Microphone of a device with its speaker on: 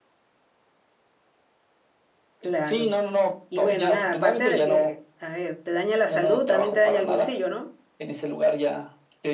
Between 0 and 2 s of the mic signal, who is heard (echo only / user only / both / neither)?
neither